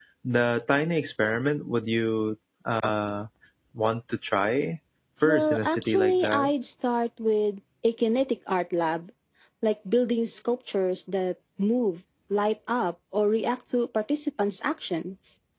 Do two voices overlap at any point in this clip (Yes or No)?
Yes